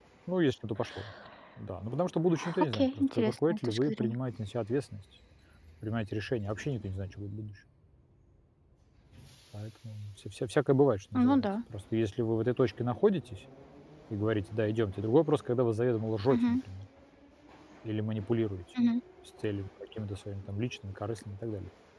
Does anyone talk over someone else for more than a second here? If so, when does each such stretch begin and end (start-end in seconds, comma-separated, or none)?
2.6-4.2